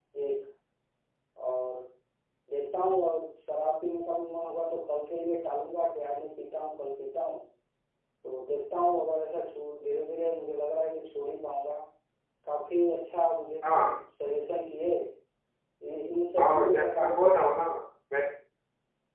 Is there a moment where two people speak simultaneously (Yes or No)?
Yes